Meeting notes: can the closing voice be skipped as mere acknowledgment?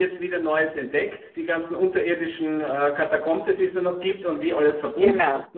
Yes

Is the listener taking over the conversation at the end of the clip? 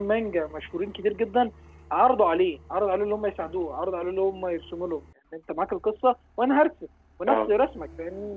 No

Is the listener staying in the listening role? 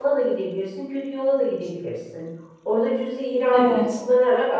Yes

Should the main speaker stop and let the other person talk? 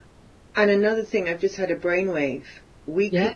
No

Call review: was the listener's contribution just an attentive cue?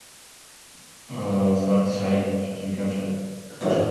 No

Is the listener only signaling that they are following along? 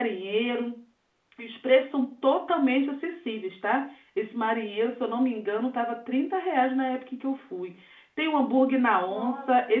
Yes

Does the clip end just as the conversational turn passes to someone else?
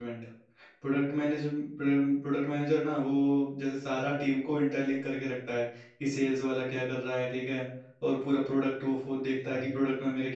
No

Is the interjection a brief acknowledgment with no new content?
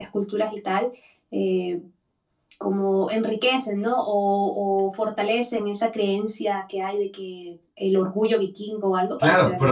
No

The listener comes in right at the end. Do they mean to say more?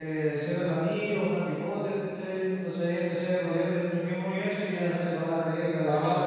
Yes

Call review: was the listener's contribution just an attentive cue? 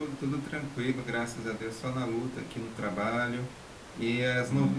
Yes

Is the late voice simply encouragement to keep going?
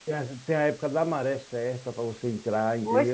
No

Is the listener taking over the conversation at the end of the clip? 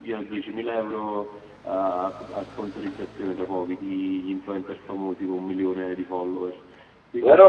Yes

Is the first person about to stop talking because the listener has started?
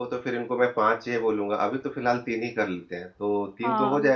Yes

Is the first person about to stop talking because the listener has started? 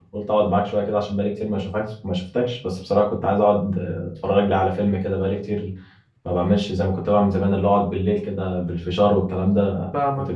Yes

